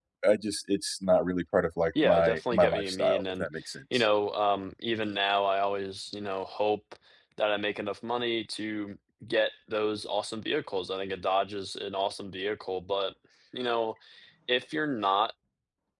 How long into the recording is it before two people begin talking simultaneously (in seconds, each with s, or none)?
1.9 s